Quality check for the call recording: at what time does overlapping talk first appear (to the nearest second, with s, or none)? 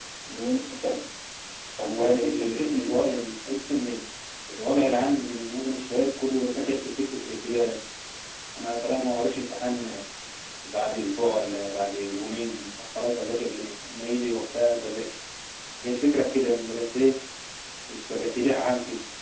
2 s